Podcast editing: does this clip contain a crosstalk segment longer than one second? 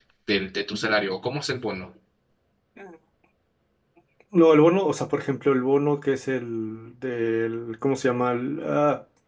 No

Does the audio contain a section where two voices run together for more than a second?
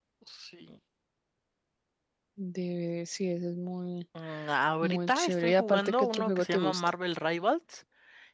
Yes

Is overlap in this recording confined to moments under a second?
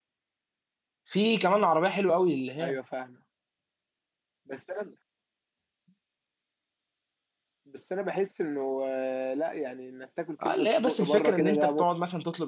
No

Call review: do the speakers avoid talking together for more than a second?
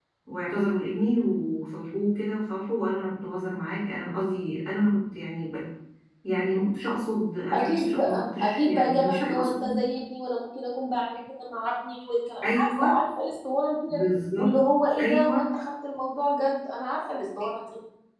No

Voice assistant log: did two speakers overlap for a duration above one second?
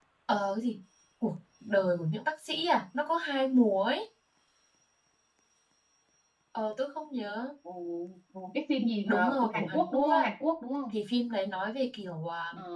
Yes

